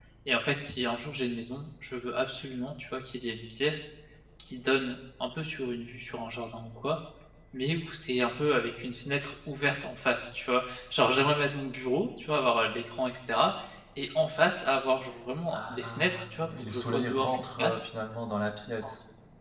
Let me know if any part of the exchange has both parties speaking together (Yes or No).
Yes